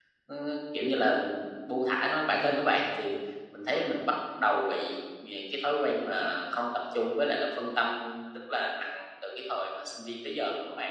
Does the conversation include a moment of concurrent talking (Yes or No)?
No